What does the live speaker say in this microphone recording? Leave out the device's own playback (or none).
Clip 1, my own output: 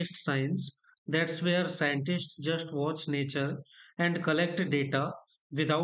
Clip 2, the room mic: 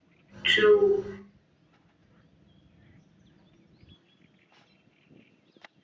True.